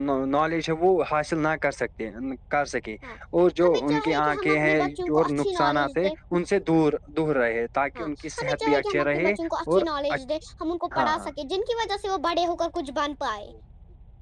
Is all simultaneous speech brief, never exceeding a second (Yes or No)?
No